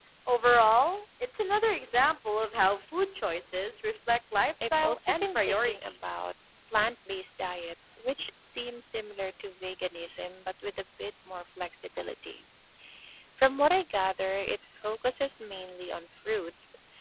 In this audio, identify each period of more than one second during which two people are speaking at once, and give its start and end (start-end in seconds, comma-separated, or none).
4.6-6.3